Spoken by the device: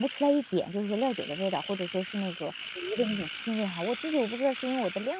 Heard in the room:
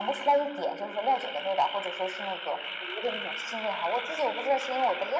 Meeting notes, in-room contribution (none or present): none